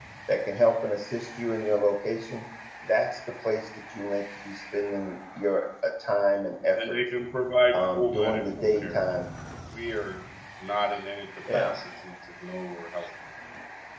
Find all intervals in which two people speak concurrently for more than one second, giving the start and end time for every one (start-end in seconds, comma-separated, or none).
7.7-9.0